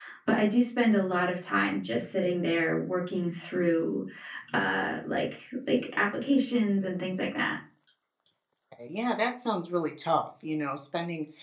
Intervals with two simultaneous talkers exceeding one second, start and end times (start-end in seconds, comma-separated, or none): none